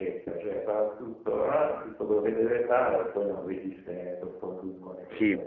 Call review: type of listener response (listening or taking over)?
taking over